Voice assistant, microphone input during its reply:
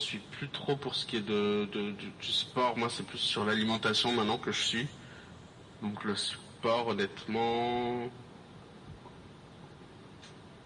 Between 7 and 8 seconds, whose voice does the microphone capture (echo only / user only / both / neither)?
echo only